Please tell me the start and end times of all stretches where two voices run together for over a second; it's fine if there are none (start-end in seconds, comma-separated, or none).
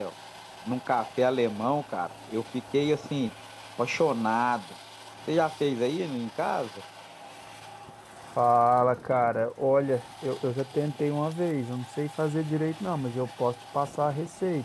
none